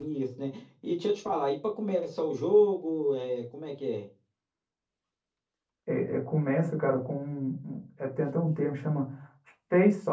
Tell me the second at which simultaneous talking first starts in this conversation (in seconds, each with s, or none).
none